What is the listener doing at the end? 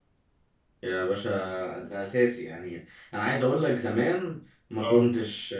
listening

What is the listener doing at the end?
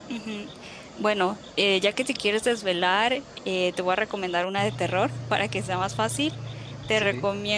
listening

